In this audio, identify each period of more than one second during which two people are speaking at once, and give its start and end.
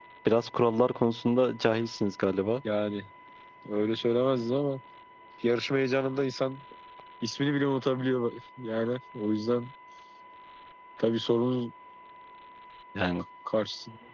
none

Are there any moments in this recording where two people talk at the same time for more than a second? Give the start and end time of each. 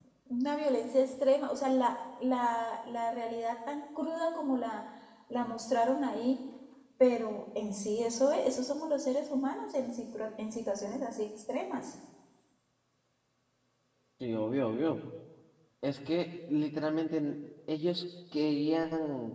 none

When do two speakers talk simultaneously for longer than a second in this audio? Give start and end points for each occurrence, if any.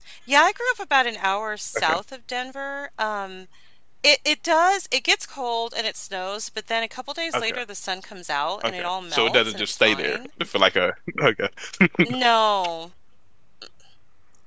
8.6-10.2

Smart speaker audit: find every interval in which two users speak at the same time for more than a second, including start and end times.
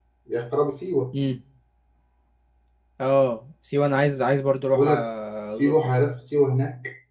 none

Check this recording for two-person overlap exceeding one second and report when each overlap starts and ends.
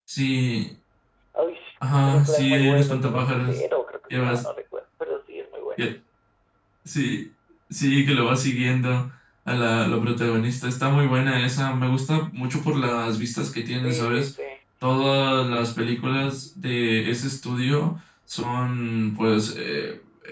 1.9-3.6

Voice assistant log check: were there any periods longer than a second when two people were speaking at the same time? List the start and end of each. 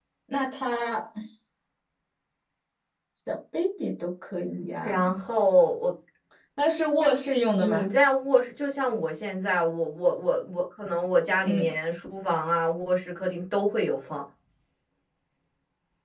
none

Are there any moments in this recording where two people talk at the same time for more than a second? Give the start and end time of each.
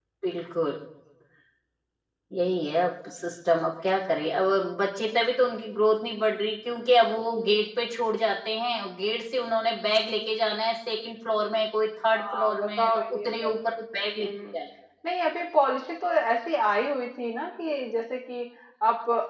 12.1-13.5

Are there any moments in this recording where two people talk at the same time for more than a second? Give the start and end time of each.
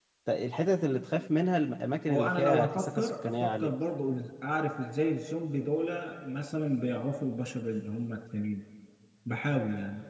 2.1-3.7

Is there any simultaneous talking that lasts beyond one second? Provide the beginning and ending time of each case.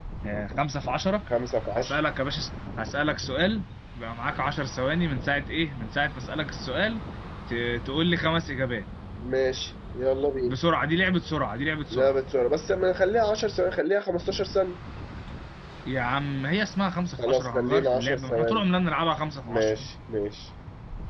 17.2-18.6

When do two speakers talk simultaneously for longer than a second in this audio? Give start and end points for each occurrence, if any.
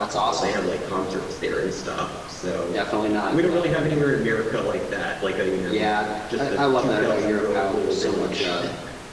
6.4-8.5

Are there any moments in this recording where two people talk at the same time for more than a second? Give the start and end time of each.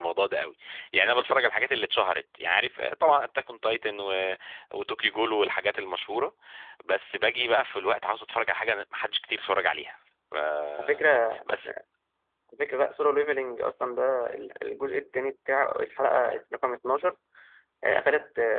none

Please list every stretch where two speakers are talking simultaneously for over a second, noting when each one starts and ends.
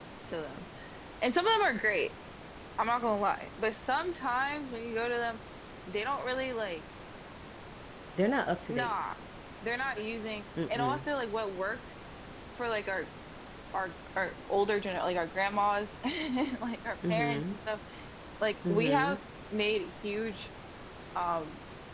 none

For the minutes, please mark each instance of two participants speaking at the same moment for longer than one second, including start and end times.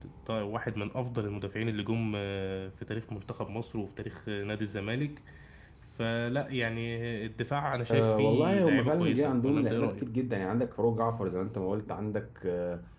7.9-10.0

